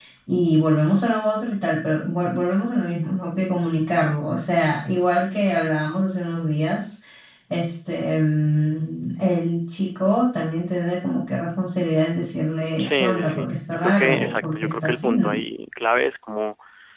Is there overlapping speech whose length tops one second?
Yes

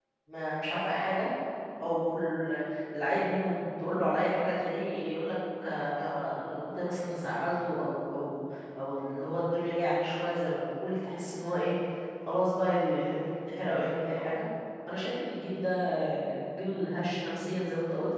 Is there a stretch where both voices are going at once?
No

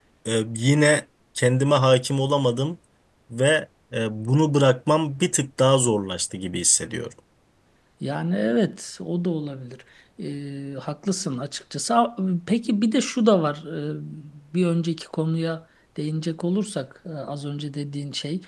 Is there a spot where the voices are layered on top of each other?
No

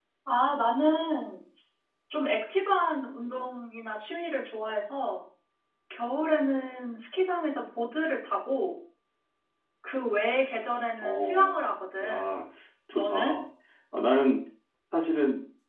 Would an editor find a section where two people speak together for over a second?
No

